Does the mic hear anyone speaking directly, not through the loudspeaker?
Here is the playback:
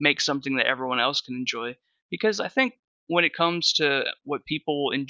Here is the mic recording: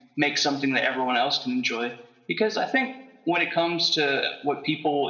No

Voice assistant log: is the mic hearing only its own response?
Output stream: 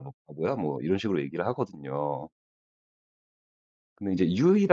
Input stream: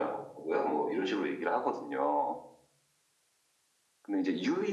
Yes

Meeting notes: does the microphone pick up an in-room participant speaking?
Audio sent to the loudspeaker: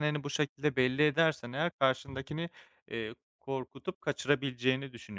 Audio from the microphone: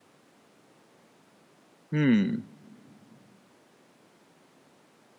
Yes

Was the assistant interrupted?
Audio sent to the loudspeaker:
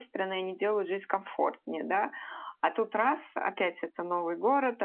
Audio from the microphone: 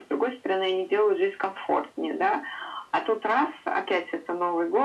No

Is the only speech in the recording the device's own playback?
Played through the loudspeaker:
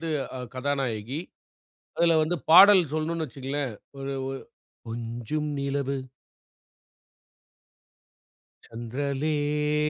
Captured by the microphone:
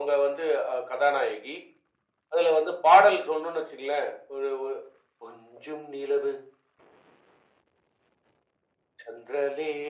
Yes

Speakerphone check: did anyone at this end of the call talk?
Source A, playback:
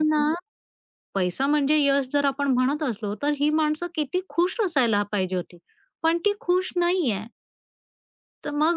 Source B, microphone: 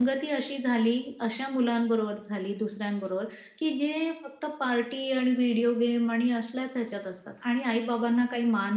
Yes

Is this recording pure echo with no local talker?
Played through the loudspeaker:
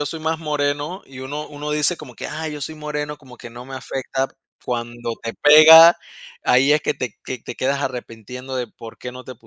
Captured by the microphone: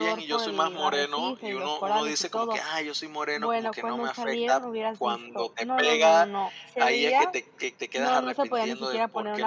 No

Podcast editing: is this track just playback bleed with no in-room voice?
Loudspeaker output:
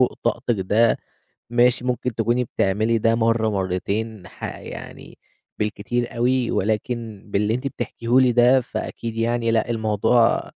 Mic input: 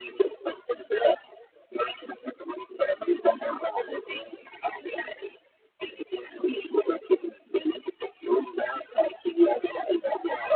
Yes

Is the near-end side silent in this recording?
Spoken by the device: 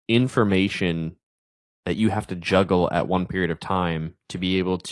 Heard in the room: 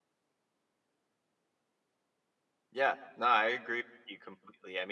No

